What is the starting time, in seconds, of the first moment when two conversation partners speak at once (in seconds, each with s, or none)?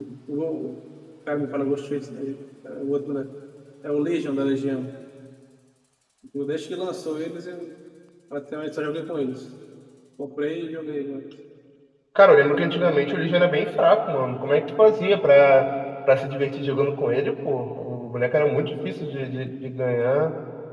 none